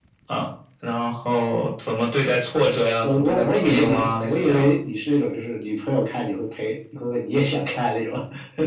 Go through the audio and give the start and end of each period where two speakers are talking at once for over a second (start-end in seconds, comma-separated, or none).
3.0-4.6